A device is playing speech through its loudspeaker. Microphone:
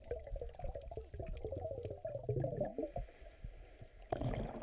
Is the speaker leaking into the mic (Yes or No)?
No